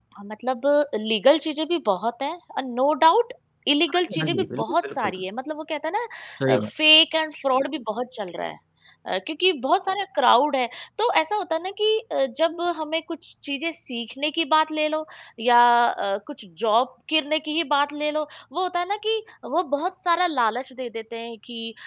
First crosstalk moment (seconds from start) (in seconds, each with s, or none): 3.9 s